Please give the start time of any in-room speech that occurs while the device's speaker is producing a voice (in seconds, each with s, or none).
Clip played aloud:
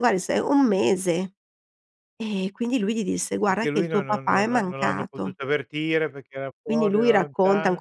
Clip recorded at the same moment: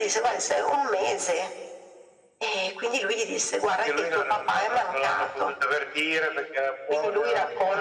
none